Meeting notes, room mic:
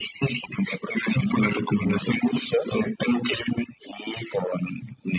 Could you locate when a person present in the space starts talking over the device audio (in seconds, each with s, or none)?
none